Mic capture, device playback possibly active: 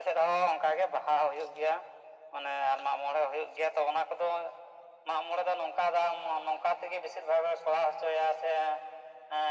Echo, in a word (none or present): present